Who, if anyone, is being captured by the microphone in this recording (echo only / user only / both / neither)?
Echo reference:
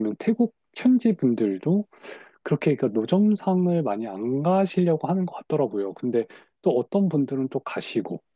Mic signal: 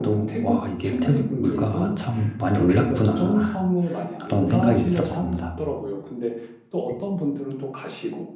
both